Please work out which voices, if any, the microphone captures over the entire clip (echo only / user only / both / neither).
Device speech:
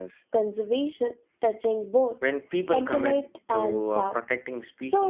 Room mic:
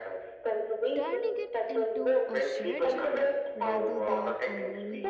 both